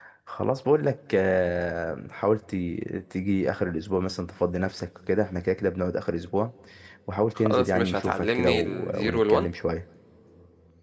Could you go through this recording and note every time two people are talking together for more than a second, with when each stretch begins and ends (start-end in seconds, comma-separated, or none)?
7.4-9.5